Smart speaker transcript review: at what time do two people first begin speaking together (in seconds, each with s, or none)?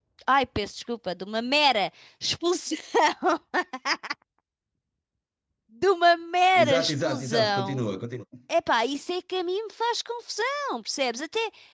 6.5 s